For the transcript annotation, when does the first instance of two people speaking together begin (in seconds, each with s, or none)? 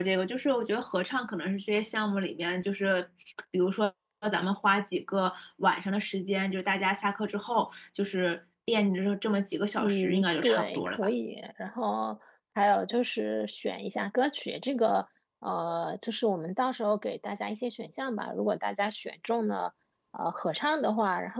9.8 s